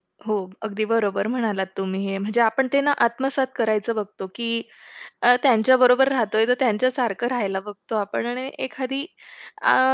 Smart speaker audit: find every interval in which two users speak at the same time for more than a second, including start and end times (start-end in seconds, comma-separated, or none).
none